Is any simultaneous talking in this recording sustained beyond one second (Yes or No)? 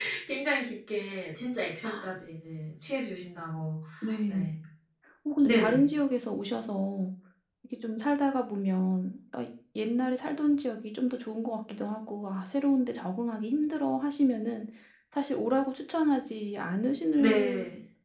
No